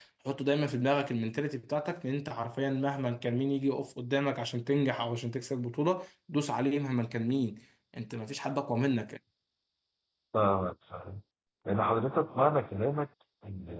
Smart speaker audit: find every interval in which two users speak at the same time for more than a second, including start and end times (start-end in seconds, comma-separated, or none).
none